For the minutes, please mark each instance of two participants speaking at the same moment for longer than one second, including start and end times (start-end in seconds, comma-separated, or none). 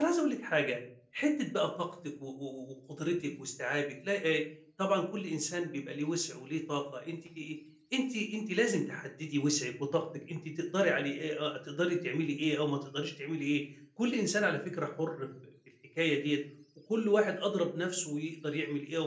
none